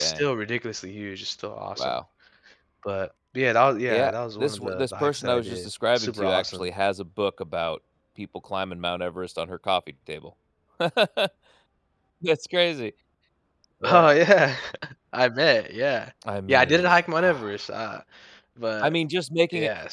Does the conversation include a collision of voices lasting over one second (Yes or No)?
Yes